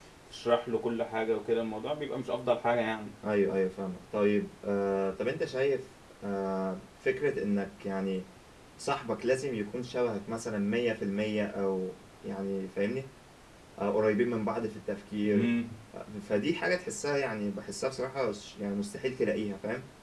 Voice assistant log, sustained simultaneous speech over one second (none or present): none